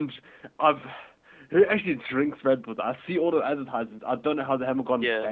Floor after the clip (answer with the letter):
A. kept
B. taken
B